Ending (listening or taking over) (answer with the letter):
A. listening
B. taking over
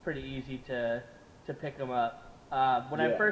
A